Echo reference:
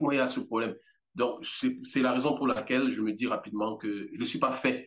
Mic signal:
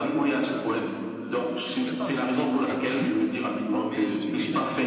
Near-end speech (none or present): present